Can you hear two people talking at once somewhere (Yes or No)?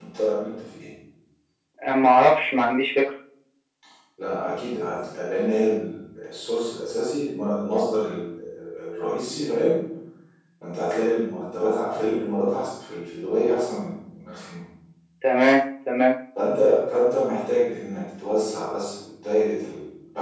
No